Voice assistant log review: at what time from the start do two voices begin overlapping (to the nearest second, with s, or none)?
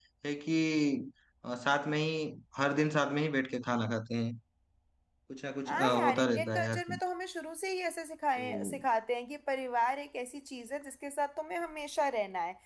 6 s